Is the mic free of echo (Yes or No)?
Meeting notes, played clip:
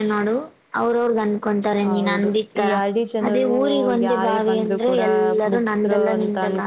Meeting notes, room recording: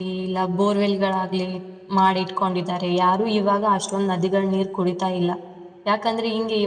Yes